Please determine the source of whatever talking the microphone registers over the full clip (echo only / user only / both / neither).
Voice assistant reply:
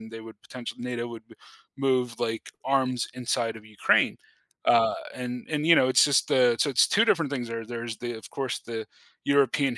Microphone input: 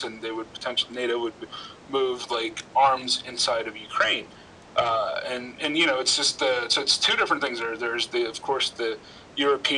echo only